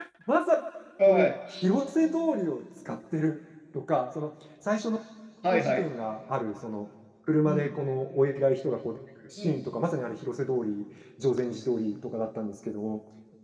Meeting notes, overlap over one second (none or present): none